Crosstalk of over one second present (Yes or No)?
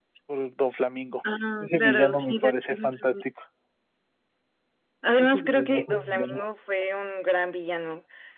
Yes